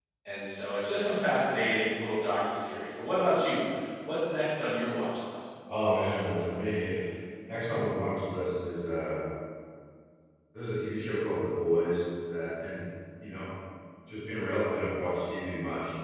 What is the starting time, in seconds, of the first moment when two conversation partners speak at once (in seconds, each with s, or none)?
none